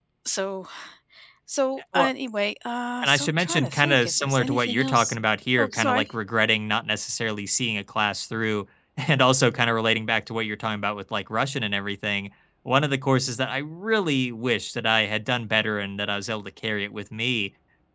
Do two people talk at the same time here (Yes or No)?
Yes